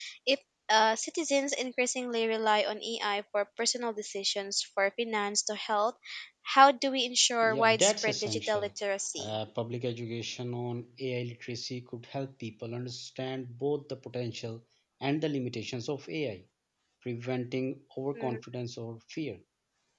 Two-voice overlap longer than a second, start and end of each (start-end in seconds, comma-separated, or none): 7.4-8.7